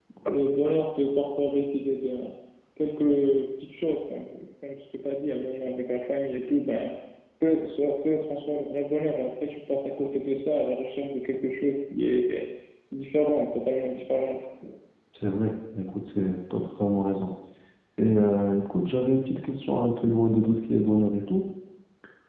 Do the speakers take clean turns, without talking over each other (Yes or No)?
Yes